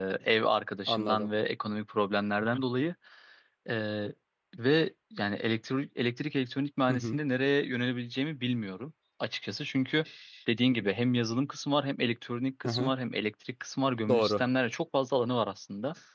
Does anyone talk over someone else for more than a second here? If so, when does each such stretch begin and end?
none

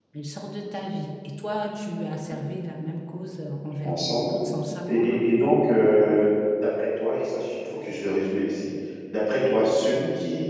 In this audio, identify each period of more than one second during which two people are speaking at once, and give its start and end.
none

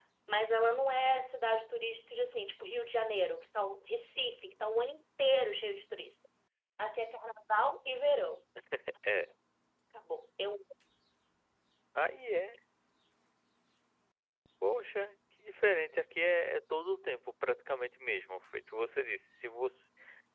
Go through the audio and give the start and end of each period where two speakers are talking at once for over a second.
none

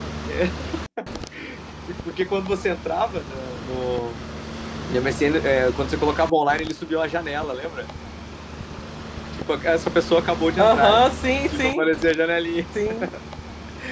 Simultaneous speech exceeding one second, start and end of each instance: none

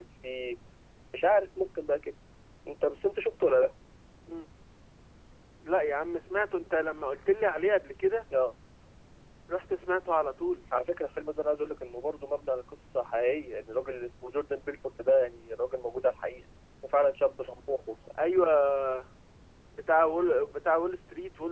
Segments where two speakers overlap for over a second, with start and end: none

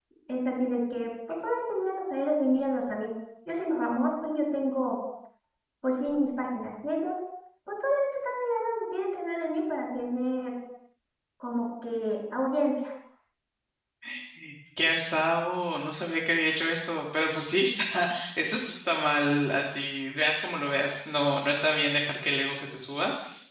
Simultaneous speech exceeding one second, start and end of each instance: none

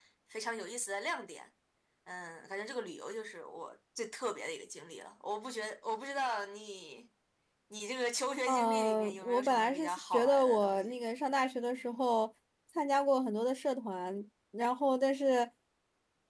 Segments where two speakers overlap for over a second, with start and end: 8.5-10.9

